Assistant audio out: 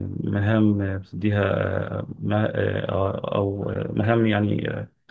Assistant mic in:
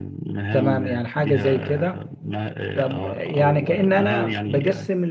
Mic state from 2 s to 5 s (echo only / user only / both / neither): both